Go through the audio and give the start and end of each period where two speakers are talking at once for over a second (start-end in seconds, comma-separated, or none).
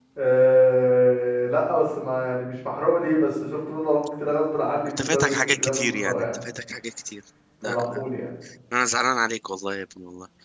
5.0-6.3